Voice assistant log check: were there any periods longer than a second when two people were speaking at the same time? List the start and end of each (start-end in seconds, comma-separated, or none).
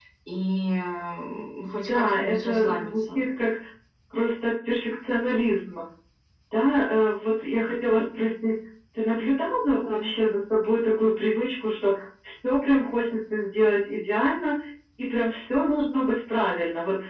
1.9-3.2